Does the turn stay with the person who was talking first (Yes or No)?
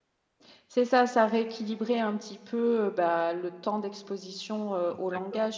Yes